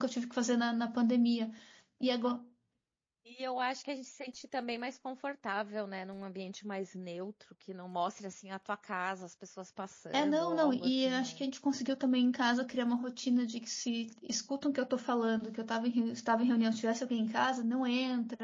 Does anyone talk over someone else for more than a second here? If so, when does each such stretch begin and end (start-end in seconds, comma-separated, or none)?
10.1-11.4